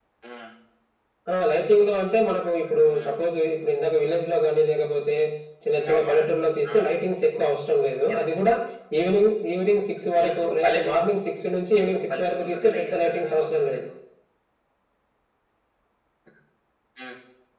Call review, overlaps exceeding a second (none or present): present